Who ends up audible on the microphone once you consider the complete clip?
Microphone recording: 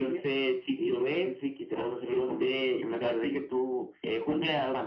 echo only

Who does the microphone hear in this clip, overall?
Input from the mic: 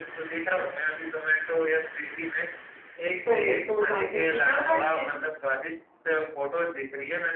both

